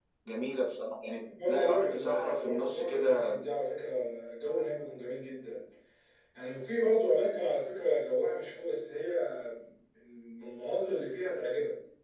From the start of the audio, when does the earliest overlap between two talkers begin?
1 s

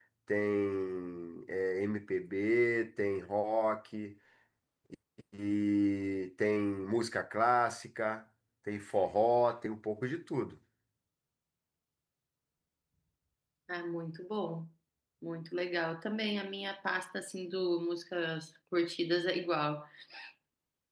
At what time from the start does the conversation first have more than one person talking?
none

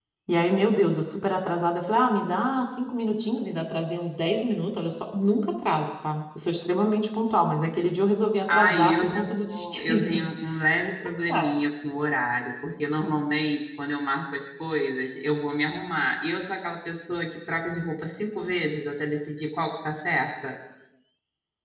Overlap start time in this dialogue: 8 s

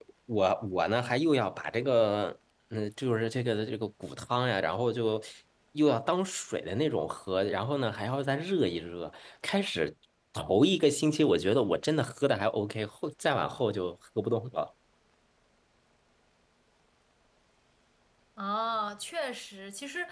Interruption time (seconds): none

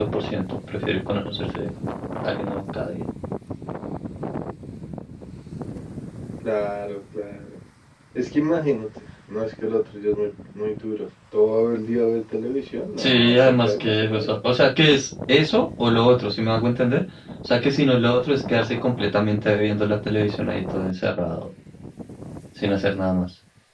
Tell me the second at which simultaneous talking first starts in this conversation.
13 s

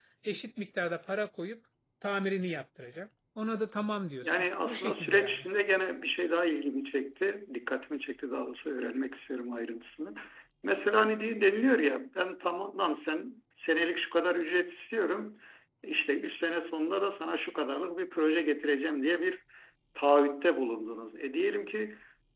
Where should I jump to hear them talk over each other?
4 s

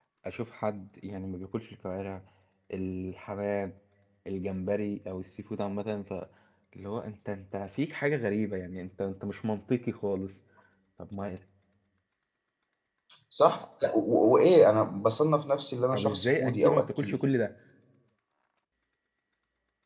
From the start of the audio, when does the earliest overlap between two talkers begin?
16 s

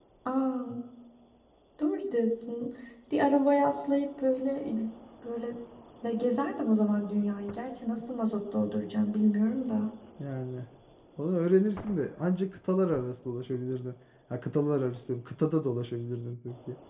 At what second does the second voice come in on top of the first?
none

